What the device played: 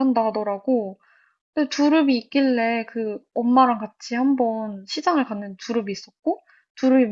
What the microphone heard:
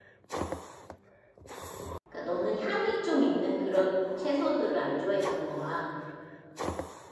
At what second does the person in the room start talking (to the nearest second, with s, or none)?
2 s